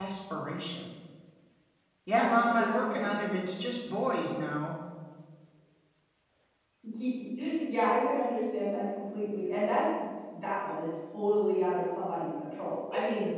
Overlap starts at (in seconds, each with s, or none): 2.1 s